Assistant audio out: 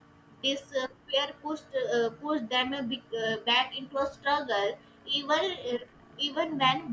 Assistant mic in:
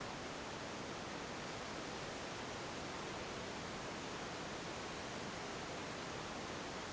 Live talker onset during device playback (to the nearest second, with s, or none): none